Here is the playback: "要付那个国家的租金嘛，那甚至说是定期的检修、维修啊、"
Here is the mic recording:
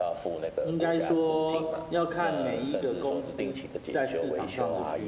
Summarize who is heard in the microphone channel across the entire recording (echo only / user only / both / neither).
both